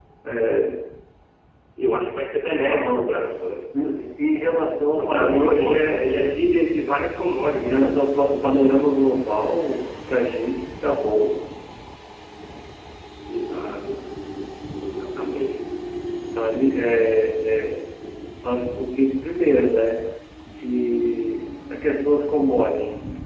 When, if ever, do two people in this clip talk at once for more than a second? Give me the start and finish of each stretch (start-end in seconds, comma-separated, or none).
5.0-6.3